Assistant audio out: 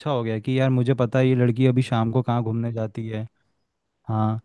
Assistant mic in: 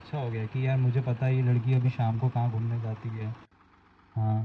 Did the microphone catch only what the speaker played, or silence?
Yes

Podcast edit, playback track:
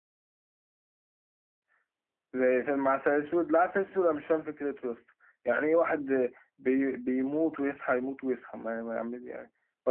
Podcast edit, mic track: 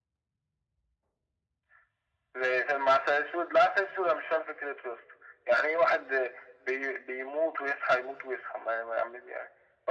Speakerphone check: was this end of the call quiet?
Yes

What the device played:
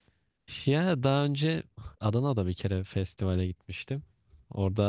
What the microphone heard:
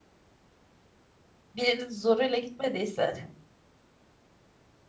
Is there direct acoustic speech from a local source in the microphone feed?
Yes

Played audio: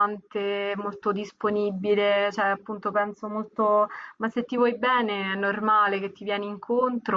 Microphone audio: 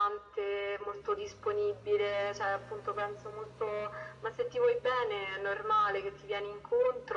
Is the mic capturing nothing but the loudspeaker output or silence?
Yes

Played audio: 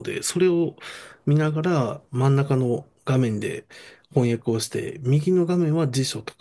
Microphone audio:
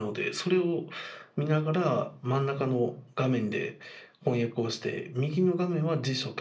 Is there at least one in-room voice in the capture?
No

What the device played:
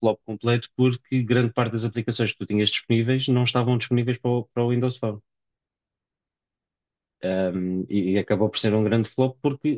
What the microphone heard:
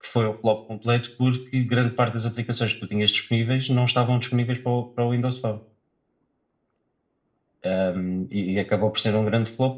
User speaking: No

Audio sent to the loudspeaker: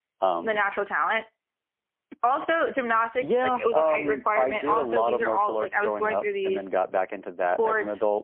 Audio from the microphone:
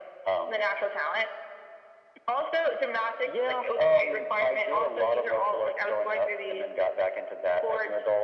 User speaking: No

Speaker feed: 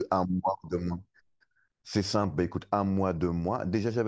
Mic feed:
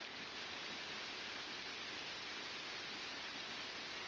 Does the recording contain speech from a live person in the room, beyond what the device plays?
No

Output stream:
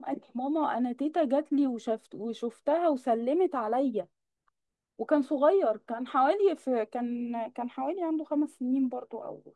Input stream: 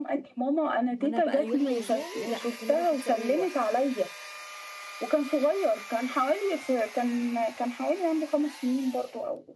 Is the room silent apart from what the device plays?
No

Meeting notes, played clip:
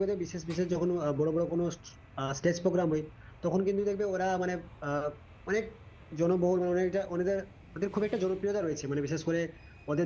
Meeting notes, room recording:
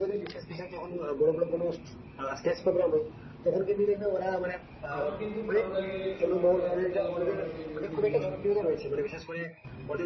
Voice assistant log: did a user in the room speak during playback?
Yes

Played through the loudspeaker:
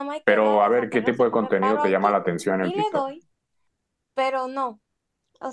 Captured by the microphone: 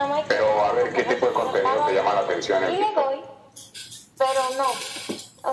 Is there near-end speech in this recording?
No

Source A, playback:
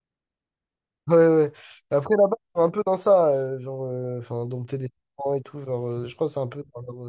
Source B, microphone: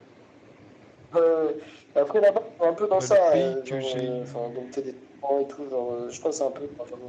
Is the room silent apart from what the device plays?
No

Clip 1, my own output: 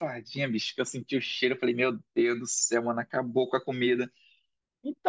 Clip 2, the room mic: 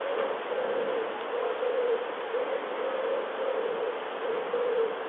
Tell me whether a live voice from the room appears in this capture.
No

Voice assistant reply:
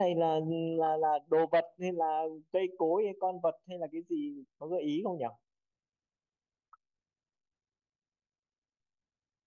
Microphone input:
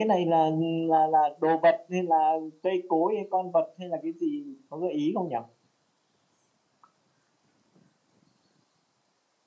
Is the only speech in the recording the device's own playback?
Yes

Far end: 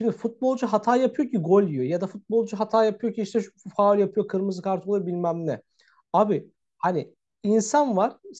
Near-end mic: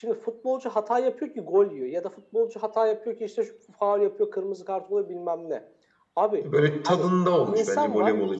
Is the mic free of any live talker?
No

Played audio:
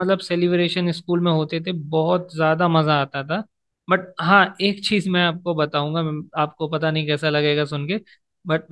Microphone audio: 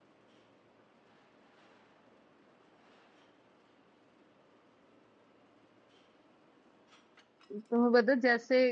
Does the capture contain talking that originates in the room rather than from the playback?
Yes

